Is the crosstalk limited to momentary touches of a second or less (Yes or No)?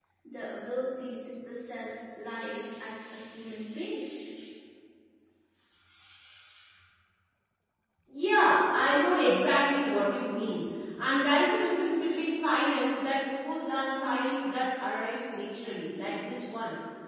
Yes